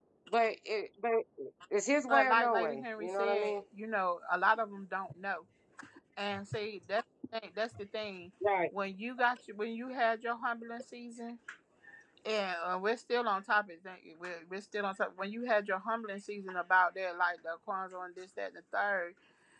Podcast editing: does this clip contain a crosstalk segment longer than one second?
Yes, from 2.1 s

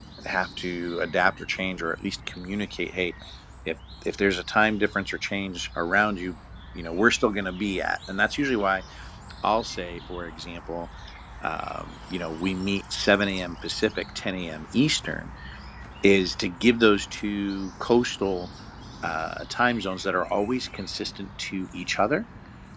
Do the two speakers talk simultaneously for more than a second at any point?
No

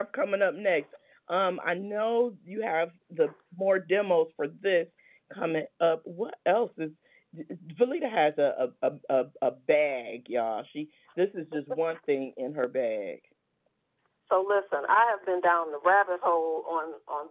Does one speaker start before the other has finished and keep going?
No

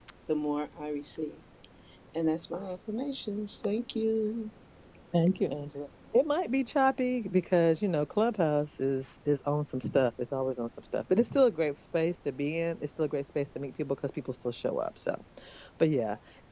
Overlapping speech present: No

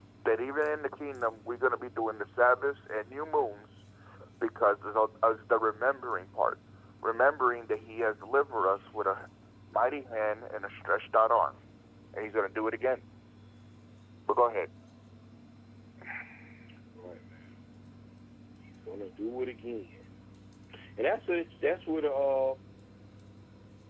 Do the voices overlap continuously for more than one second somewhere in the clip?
No

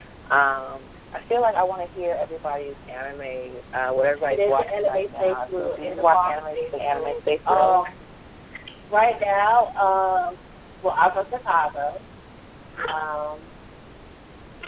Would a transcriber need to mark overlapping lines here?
Yes, from 4.3 s

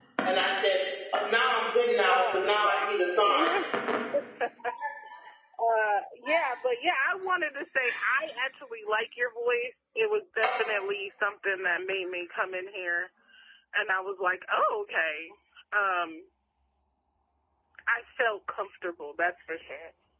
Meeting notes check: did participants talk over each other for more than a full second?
Yes, from 2.1 s

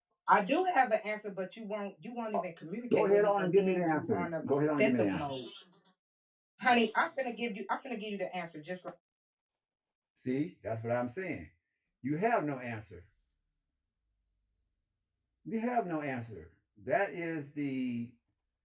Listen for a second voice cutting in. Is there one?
Yes, from 2.9 s

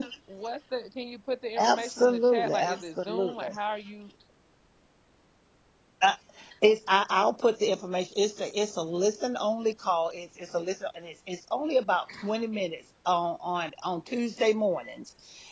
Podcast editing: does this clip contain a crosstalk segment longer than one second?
Yes, from 1.6 s

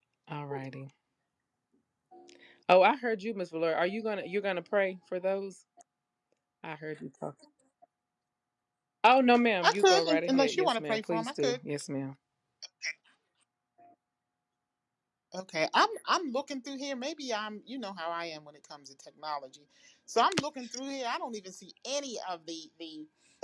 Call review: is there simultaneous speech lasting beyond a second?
Yes, from 9.6 s

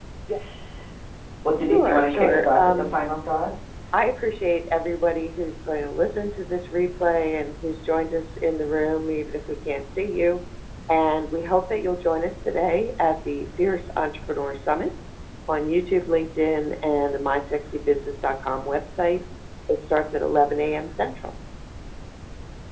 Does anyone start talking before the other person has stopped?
Yes, from 1.7 s

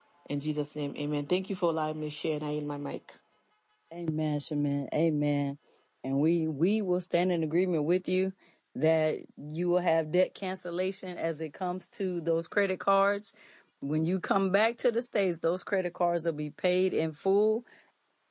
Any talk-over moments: No

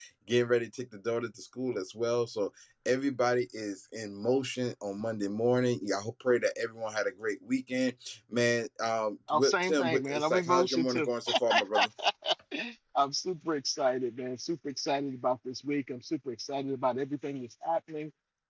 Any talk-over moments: Yes, from 9.3 s

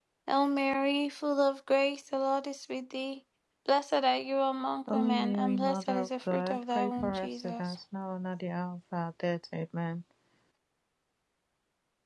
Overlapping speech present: Yes, from 4.9 s

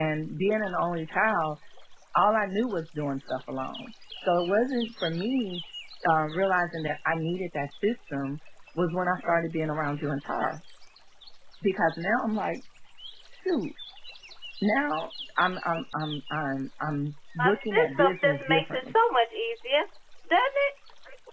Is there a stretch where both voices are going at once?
Yes, from 17.4 s

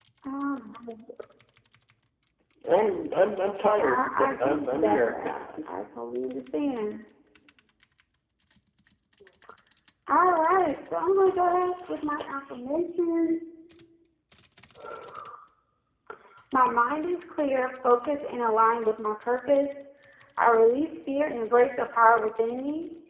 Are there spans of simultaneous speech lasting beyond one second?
Yes, from 3.8 s

